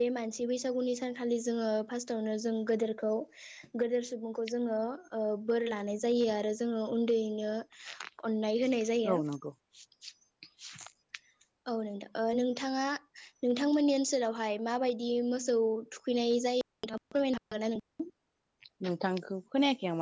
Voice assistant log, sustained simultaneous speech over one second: none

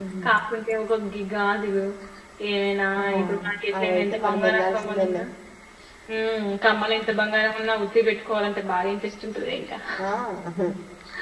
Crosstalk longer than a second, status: present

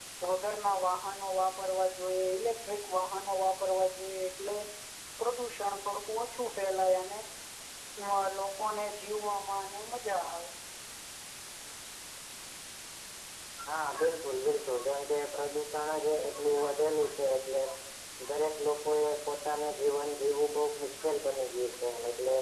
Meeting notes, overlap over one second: none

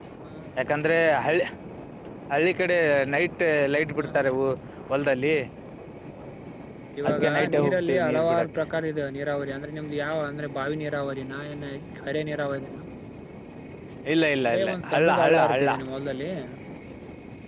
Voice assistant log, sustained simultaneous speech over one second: present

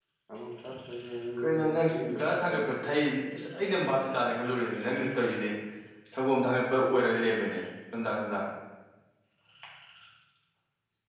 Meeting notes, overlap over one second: present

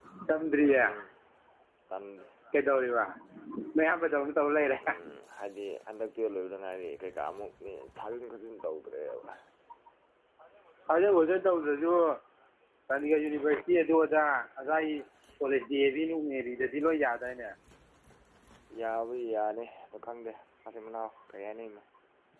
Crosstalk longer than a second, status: none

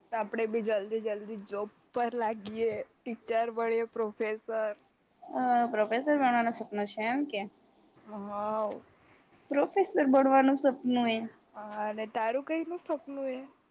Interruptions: none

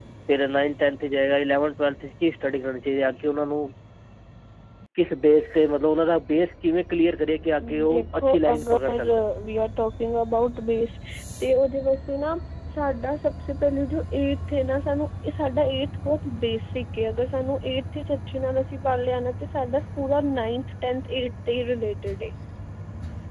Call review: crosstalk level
present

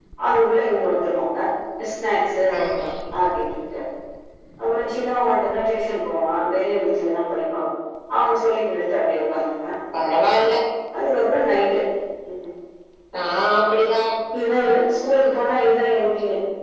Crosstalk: none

